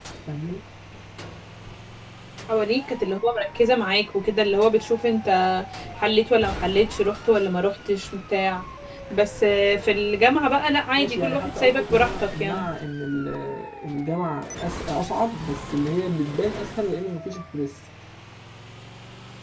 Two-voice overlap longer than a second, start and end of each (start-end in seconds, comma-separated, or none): 11.0-12.7